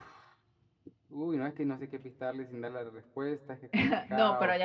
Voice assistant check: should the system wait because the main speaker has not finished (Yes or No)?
No